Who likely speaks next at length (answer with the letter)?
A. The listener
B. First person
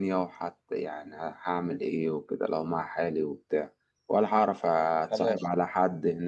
B